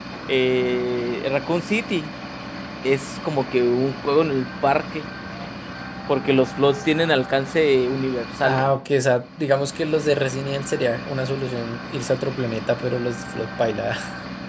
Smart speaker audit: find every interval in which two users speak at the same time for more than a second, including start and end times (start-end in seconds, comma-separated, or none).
none